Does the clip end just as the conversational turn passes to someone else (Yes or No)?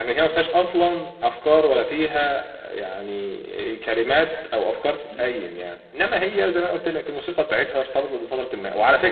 No